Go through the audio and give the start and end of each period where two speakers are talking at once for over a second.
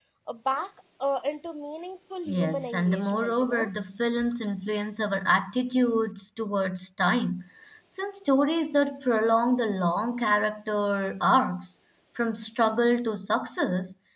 2.3-3.7

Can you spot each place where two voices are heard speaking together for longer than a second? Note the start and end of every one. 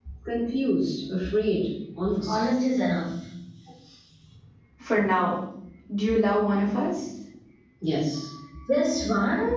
none

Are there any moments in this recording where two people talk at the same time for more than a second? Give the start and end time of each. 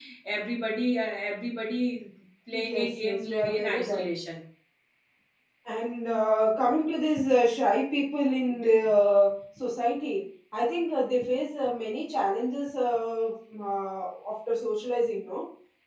2.7-4.1

